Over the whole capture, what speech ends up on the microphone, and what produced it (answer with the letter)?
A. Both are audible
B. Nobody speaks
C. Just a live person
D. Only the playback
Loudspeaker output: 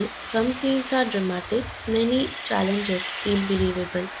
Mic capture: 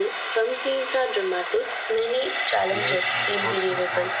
A